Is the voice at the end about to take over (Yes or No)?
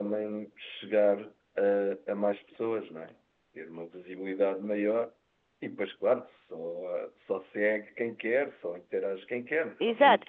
Yes